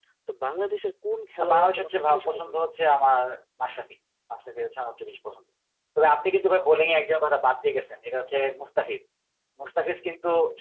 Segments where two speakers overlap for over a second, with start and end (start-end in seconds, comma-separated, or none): 1.4-2.6